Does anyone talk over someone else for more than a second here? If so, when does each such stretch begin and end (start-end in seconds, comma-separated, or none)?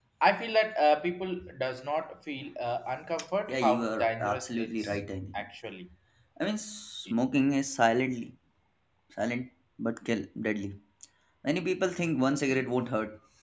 3.5-4.9